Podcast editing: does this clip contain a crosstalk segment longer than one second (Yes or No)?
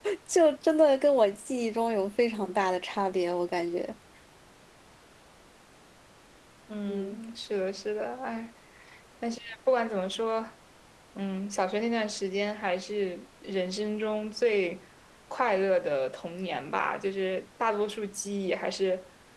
No